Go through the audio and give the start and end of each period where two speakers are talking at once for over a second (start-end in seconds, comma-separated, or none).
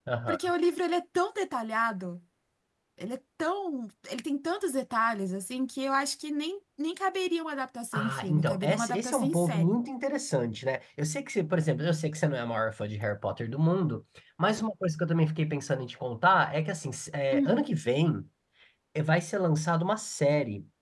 7.9-9.8